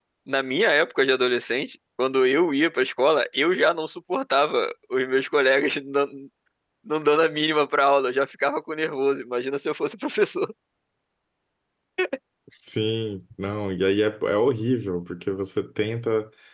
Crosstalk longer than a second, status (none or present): none